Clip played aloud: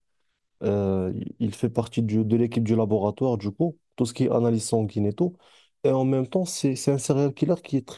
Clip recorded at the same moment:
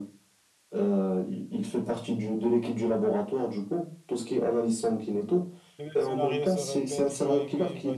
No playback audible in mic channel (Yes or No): No